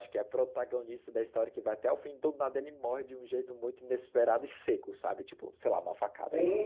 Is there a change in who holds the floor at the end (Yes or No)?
No